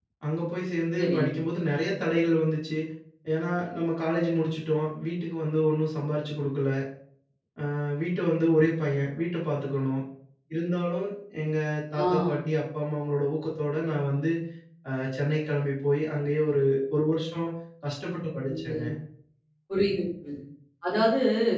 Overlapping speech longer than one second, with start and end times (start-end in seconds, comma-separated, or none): none